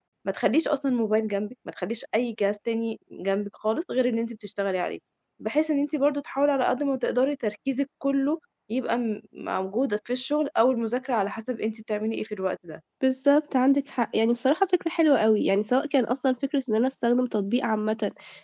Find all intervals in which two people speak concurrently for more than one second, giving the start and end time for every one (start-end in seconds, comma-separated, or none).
none